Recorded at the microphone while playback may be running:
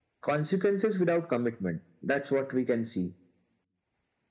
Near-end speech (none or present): none